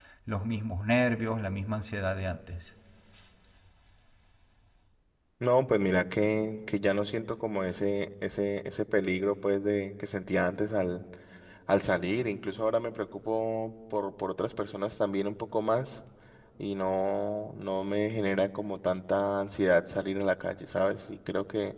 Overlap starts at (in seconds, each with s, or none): none